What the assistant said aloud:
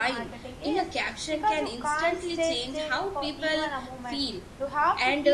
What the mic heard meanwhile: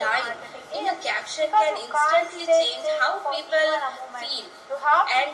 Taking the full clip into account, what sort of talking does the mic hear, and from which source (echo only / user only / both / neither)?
echo only